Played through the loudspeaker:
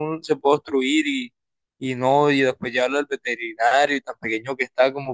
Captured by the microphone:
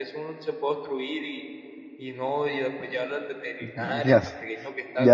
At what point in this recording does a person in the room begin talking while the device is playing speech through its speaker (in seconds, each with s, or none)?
3.6 s